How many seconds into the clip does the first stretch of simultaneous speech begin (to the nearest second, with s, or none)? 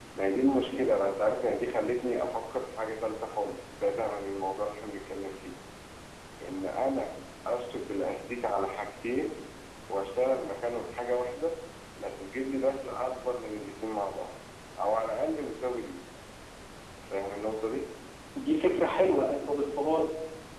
none